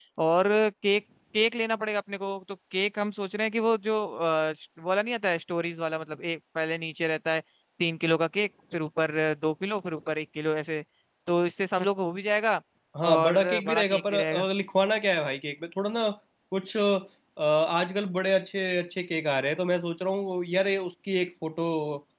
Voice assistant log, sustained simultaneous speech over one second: present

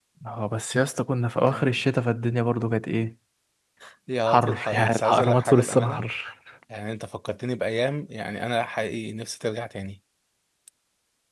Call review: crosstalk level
present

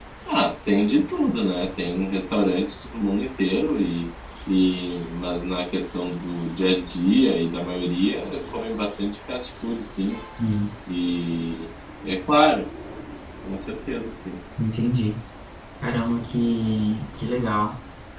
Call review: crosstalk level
none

